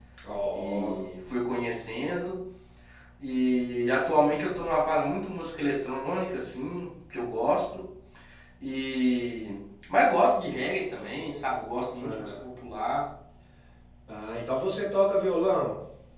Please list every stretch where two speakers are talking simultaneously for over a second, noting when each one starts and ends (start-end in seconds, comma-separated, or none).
none